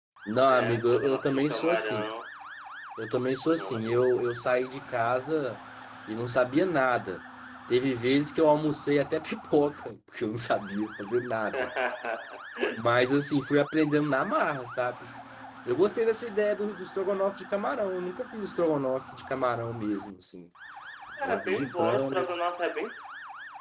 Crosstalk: present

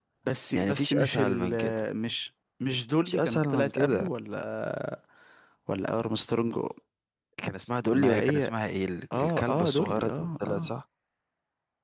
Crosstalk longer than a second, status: present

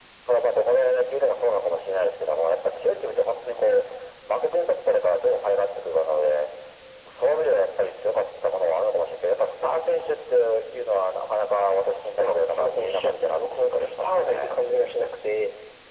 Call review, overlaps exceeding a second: present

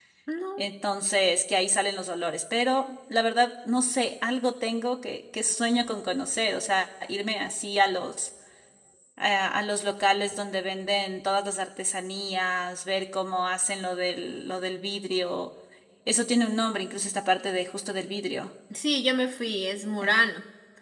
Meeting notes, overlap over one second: none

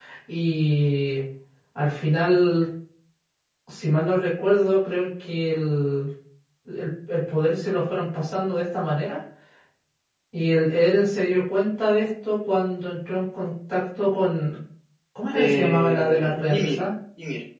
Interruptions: present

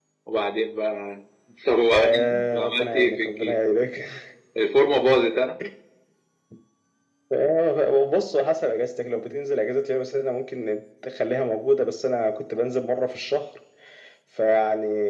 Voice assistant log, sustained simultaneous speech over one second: present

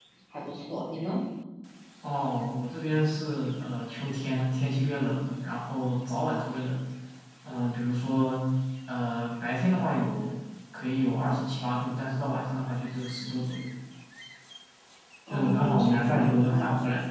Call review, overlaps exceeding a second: present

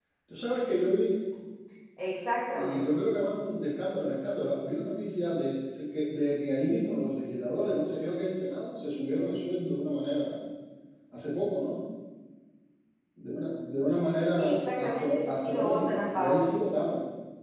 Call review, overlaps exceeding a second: present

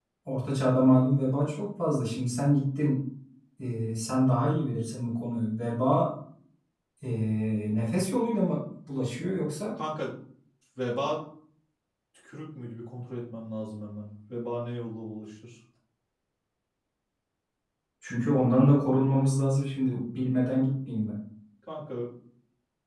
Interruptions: none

